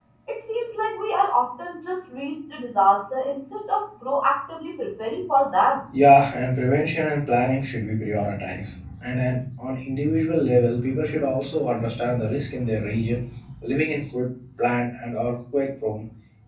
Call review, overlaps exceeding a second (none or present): none